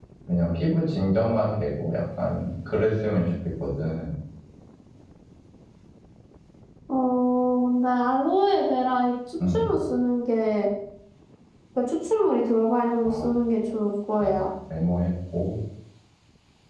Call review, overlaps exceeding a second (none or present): none